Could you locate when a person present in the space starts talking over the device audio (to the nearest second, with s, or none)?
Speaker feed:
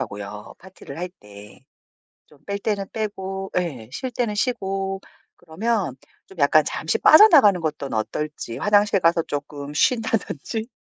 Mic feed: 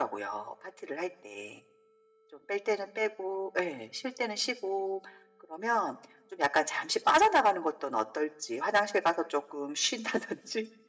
none